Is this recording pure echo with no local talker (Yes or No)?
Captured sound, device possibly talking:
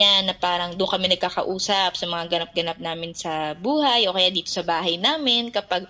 Yes